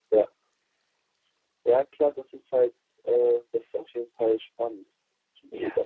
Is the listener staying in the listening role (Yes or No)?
No